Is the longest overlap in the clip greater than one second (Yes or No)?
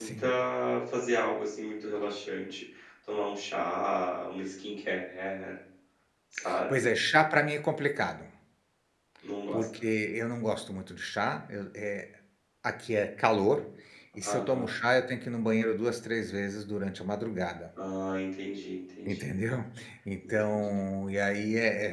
No